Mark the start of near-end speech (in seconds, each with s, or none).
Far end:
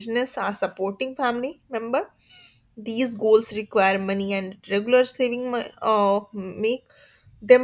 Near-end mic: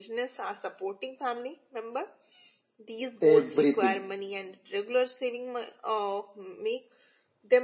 3.2 s